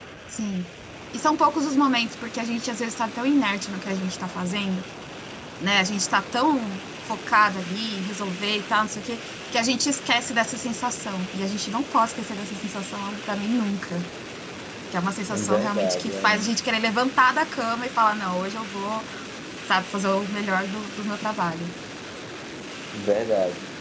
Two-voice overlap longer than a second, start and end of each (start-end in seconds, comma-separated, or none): 15.3-16.5